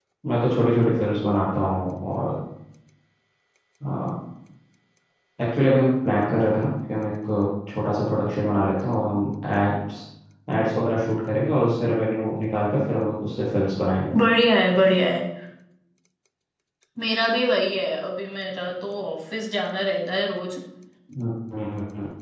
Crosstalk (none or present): none